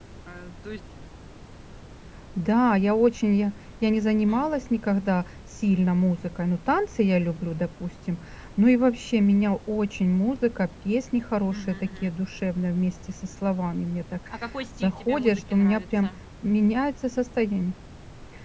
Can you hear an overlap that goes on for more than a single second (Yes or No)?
Yes